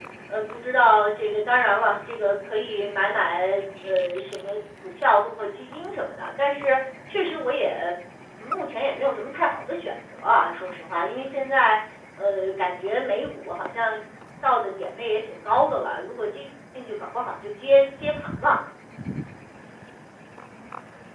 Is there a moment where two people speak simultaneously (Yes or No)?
No